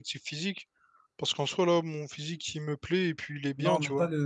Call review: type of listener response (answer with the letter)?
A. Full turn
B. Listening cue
A